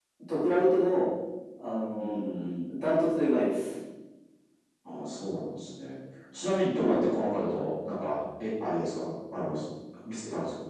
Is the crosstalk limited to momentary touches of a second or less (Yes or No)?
Yes